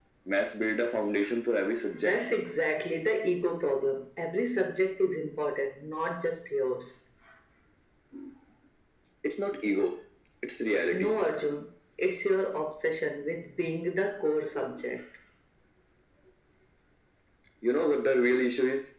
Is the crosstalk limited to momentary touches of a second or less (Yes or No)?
Yes